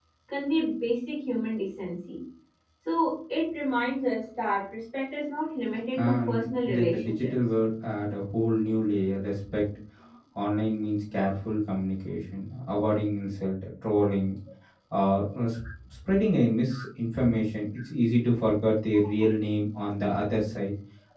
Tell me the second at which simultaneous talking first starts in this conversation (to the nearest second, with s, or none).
6 s